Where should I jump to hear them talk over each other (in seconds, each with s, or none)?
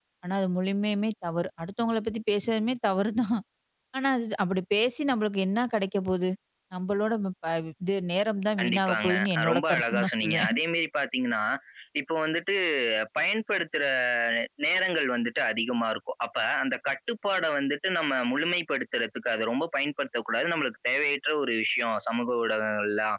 8.6 s